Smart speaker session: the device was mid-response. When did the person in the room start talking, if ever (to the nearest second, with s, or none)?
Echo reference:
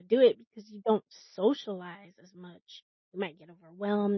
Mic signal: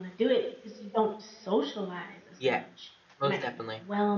2 s